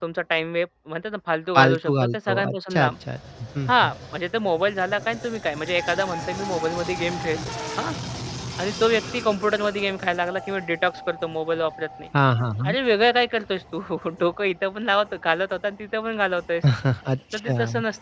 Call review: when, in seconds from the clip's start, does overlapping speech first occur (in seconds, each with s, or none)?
1.6 s